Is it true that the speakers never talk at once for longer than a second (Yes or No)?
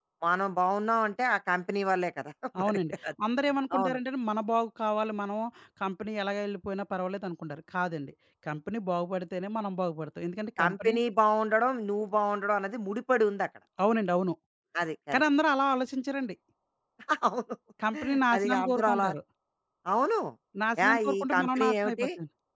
No